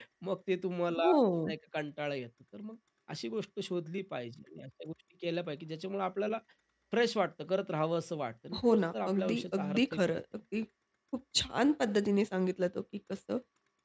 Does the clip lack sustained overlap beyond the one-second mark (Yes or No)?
No